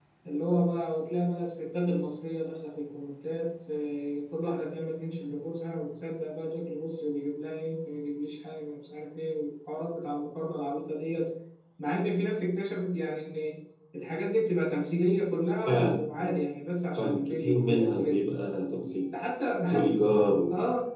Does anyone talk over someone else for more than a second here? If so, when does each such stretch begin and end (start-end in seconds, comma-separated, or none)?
17.0-18.2